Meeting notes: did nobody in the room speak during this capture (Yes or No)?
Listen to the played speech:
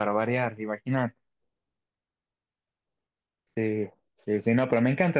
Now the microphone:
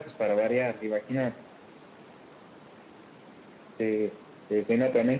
Yes